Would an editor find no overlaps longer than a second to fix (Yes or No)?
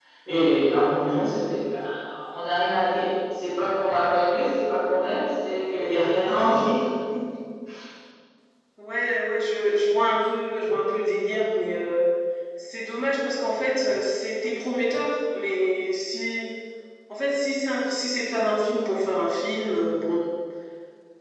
Yes